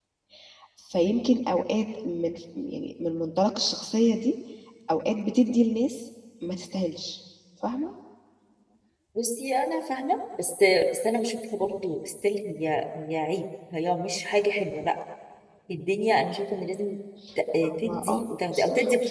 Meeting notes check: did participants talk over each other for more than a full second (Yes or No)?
Yes